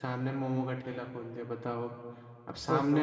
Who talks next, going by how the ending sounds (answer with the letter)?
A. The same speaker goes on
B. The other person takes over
A